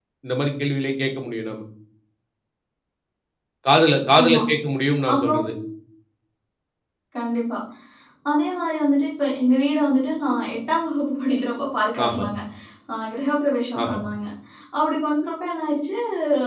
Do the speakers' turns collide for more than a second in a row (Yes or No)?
No